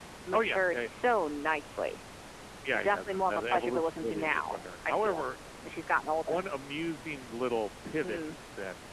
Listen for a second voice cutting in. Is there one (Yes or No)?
Yes